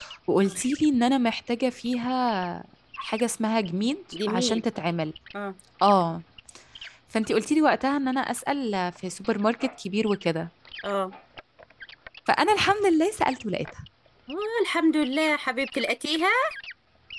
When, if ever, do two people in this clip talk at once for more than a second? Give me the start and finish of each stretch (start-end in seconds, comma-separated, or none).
none